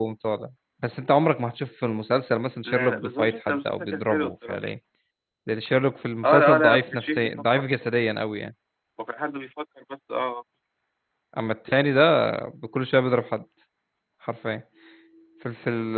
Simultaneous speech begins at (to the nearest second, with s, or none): 3 s